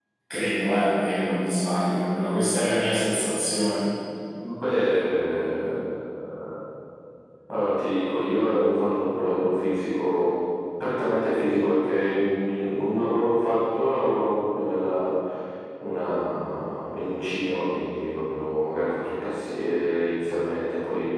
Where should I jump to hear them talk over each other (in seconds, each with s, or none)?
none